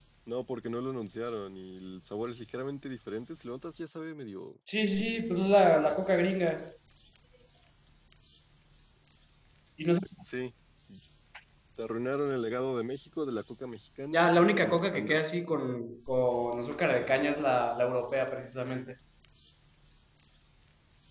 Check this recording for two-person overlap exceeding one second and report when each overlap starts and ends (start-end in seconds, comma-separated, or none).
14.1-15.5